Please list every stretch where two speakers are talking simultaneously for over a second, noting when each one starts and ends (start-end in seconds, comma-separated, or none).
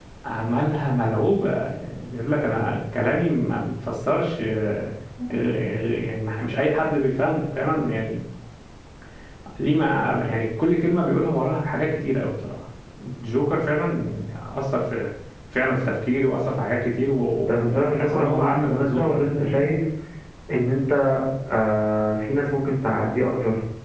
17.5-19.6